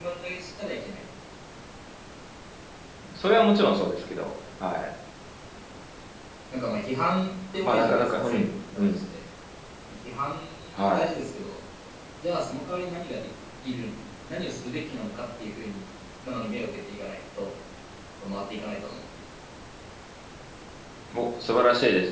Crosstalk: present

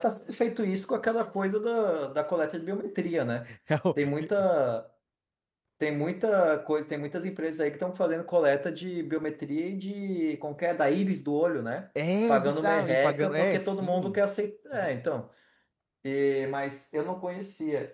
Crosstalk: present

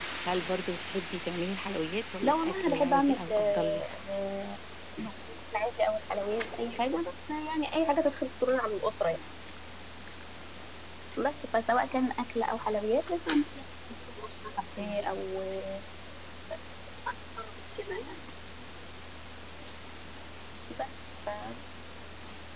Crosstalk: present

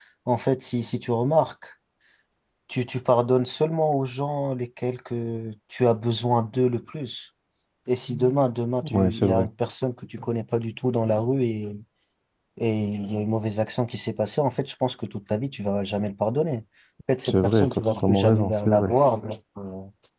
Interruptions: present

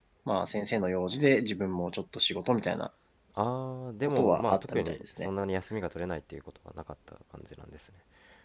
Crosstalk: present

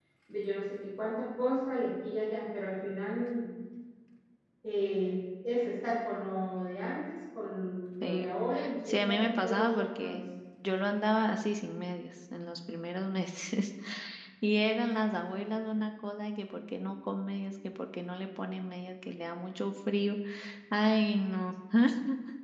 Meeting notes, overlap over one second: present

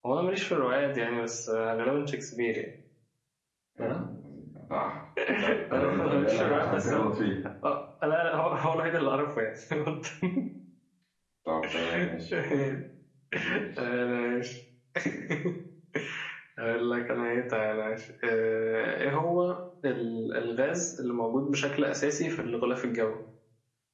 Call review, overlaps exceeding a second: present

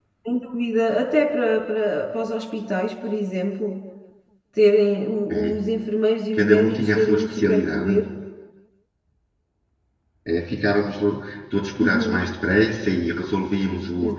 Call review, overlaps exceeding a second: present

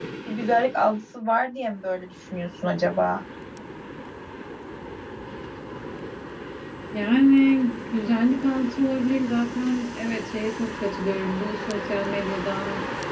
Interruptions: none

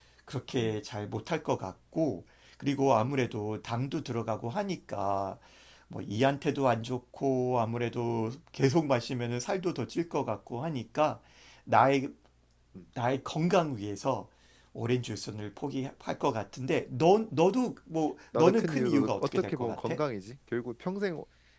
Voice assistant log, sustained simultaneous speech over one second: present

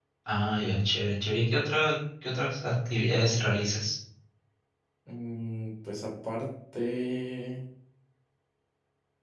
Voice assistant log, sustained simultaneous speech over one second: none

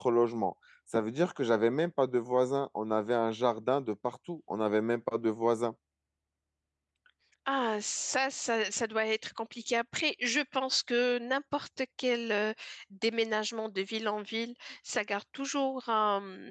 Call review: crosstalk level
none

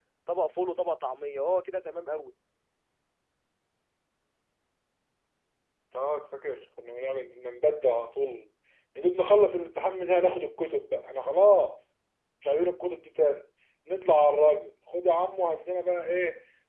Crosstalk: none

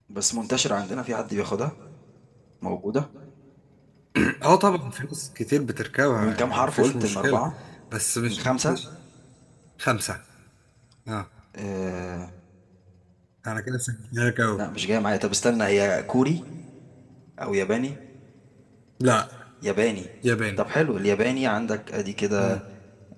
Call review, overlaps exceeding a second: present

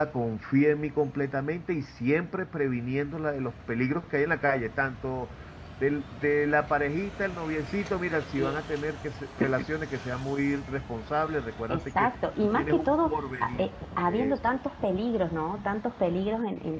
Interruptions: present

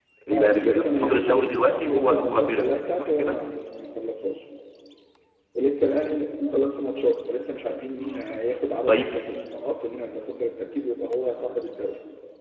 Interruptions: present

